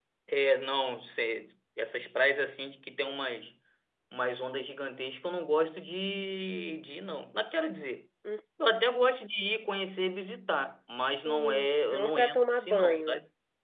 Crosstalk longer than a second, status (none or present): present